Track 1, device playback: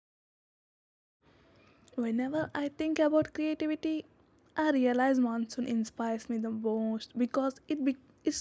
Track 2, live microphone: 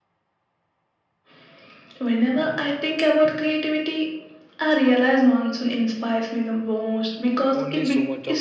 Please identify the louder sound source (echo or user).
echo